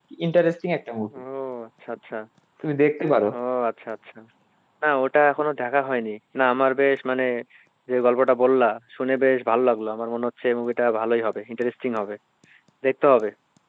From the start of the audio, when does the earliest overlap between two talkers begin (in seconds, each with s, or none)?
none